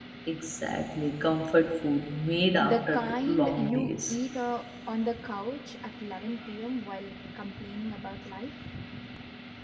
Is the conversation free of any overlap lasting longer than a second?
No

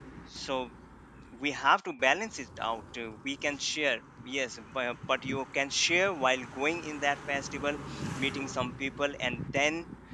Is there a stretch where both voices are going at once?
No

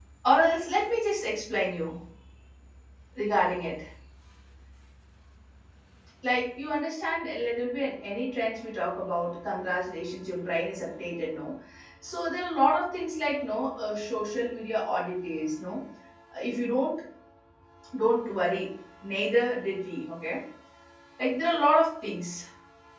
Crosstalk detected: No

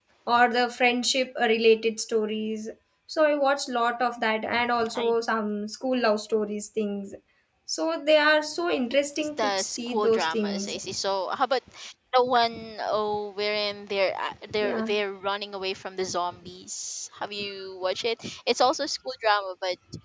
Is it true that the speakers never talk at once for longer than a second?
No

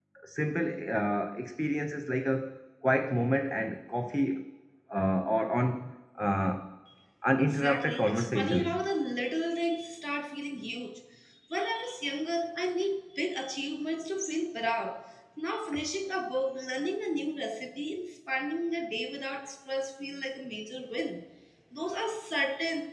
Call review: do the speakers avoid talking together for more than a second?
No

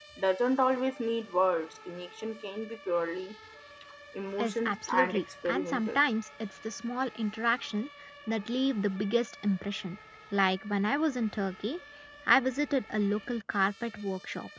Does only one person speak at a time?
No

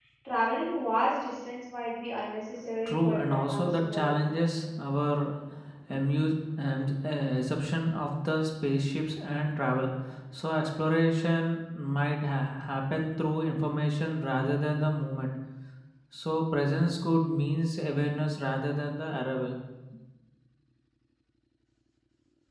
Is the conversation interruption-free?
No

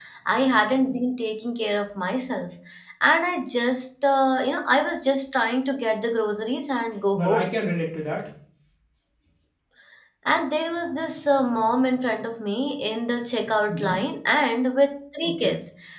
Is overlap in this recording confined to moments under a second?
Yes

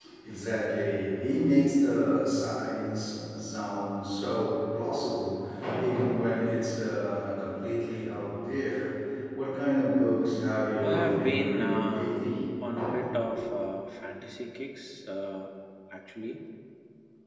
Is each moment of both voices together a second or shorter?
No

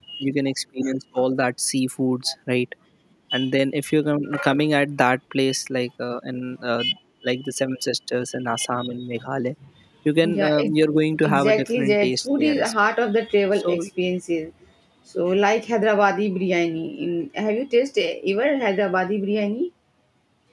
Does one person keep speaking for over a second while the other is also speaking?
Yes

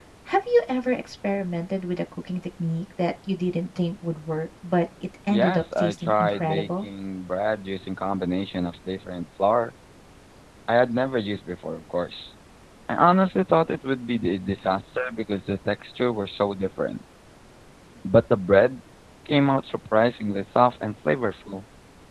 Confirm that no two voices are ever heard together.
No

